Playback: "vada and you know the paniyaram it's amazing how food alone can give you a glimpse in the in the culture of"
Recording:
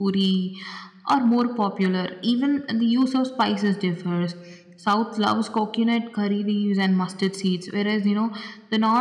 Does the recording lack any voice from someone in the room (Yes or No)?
No